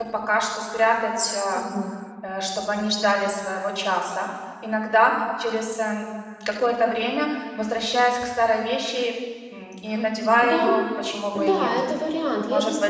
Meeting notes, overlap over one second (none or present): none